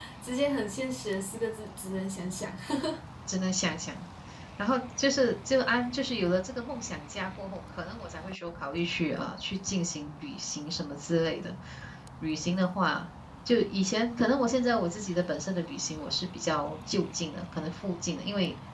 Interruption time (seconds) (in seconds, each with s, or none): none